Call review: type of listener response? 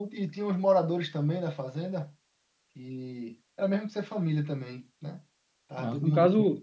taking over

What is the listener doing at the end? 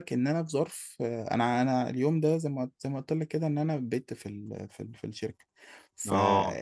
listening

